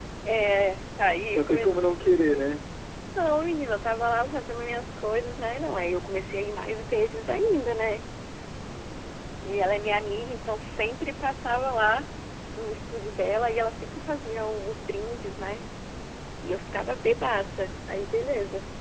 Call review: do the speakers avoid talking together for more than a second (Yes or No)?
Yes